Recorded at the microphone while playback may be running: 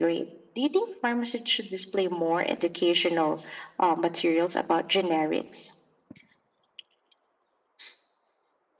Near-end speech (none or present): none